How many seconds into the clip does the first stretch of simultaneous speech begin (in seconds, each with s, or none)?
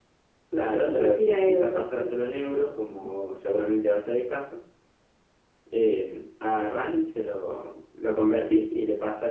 0.8 s